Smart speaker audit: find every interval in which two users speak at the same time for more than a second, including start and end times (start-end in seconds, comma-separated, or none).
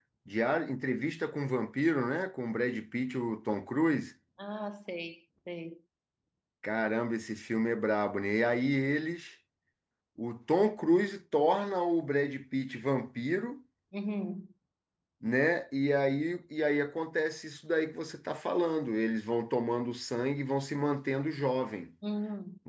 none